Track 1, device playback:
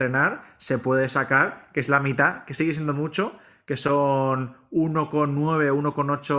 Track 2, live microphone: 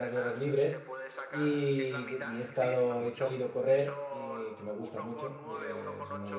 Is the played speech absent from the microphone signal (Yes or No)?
No